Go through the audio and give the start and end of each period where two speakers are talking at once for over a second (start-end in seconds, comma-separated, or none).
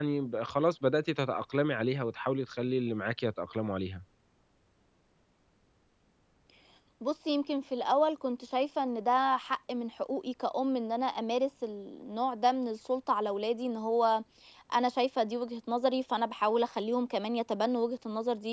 none